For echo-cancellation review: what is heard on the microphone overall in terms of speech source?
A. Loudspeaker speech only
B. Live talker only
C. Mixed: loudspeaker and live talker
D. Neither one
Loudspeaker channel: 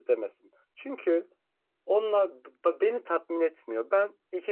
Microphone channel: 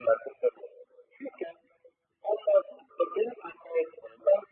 A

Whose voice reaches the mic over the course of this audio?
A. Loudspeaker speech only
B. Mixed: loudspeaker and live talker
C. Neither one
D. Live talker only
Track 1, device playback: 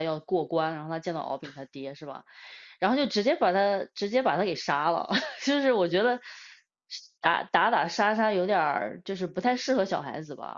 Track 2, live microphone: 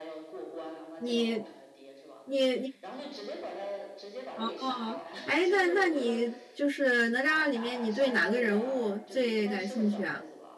B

